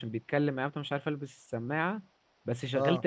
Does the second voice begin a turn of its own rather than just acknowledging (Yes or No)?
No